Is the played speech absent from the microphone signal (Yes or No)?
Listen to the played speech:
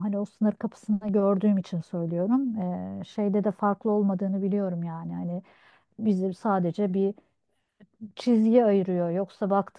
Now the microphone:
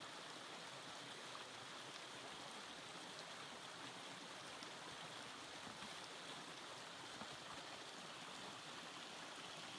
Yes